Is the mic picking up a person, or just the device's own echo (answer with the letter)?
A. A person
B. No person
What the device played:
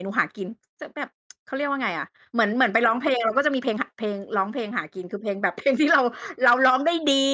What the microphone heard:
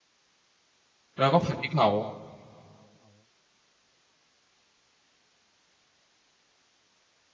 A